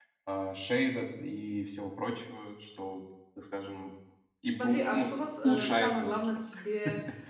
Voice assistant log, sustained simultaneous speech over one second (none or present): present